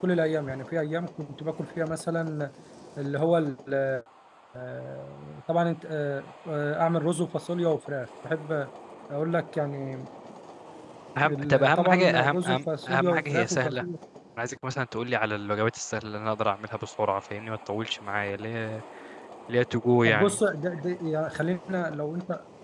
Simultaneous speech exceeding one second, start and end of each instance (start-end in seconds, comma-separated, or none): 11.3-13.8